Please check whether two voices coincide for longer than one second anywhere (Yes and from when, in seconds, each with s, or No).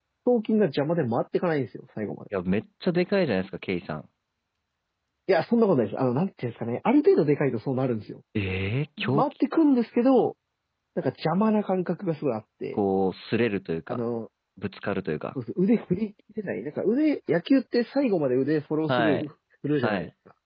No